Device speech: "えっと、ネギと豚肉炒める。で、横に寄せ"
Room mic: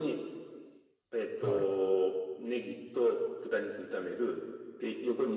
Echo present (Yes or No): Yes